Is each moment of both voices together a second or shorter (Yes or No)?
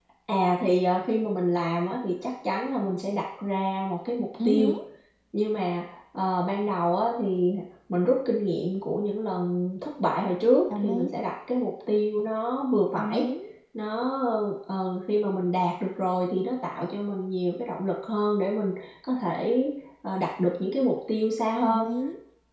Yes